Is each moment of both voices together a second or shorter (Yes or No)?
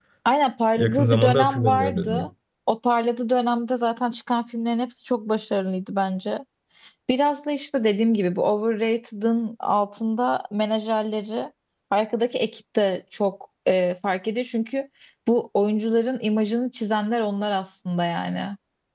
No